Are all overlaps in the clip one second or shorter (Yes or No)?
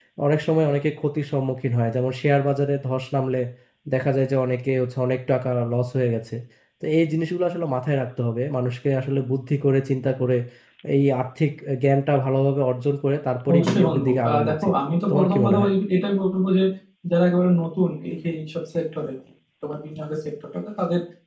No